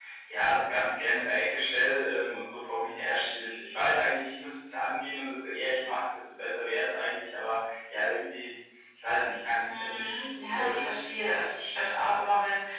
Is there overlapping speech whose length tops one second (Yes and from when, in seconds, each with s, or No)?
Yes, from 9.7 s